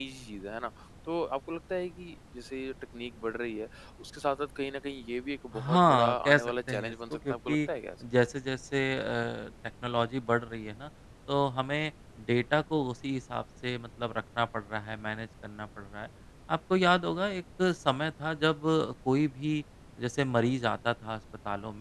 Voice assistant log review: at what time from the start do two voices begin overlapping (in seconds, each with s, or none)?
5.5 s